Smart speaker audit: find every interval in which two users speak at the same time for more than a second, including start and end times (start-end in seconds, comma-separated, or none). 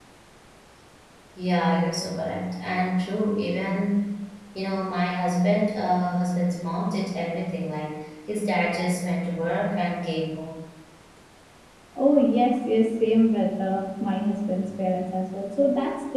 none